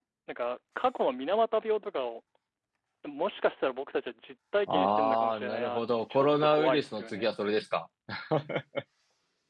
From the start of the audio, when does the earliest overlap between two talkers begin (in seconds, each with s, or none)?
4.7 s